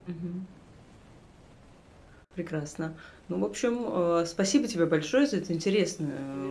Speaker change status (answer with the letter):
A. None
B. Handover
A